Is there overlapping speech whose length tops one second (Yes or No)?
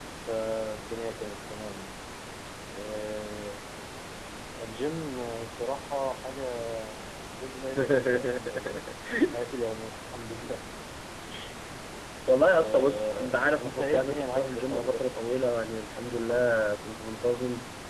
Yes